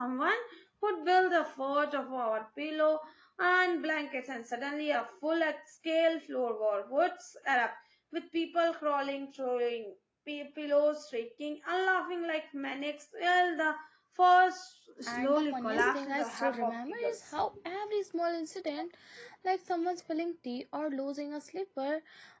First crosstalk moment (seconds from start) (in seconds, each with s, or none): 15.0 s